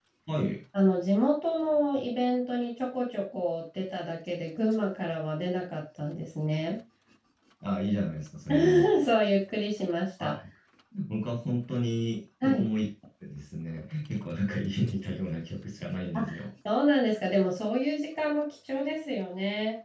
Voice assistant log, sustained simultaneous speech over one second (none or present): none